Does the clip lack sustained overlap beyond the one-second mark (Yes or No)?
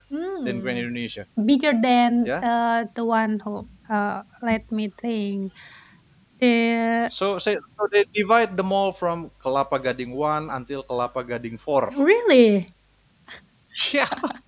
Yes